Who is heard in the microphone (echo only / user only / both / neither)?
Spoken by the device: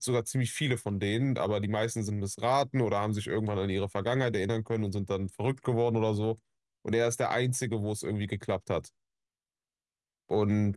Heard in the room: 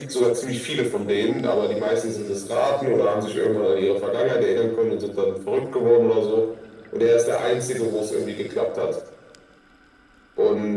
echo only